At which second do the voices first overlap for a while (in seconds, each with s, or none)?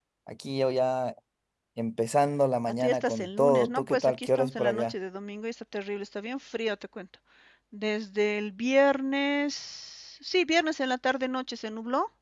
2.8 s